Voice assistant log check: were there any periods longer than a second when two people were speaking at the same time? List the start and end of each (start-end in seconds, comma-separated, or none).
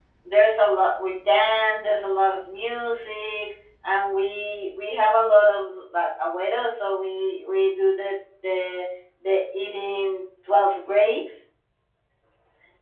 none